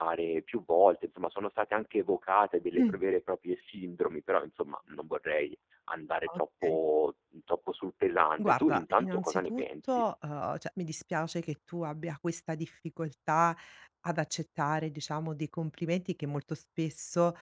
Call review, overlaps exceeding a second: present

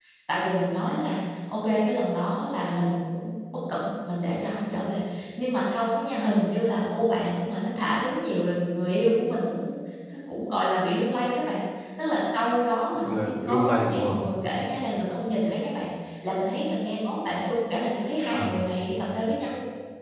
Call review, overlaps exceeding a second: present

